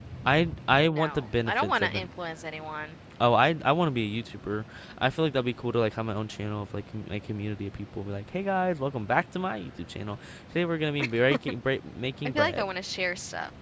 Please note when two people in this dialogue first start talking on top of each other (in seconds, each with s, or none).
0.8 s